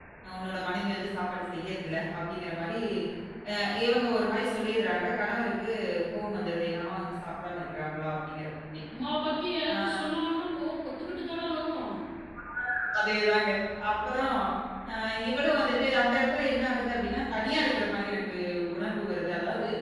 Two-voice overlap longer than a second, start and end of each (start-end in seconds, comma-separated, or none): none